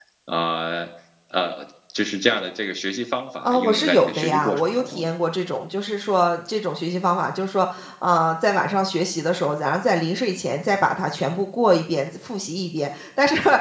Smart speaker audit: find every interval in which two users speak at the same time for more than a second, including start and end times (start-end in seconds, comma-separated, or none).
3.5-5.0